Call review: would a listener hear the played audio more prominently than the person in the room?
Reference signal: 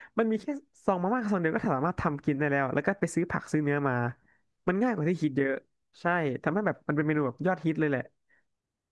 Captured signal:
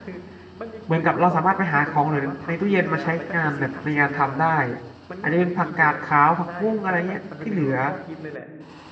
No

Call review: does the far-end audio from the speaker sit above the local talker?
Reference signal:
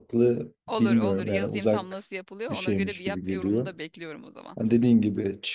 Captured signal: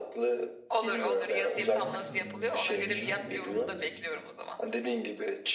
Yes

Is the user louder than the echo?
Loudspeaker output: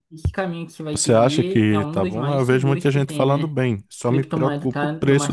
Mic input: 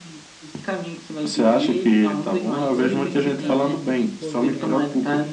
No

